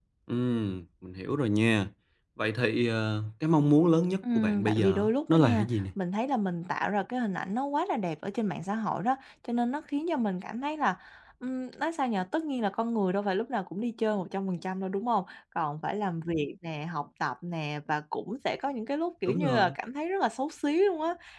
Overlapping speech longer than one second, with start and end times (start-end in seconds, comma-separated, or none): 4.3-5.8